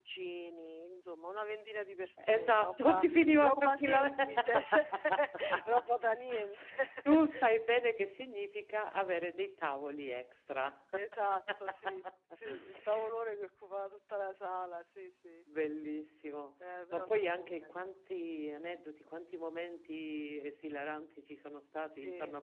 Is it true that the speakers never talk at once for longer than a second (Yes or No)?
No